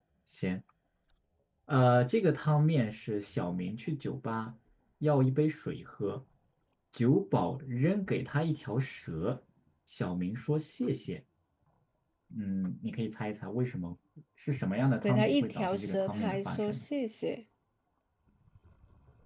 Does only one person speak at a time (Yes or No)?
No